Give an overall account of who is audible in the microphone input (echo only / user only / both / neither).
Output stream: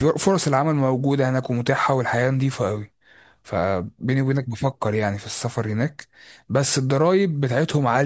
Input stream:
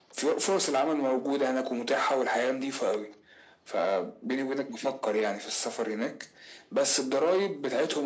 echo only